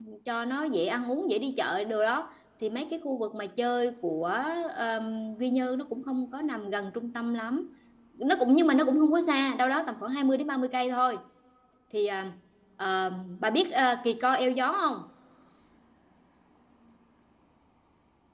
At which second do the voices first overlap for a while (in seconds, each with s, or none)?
none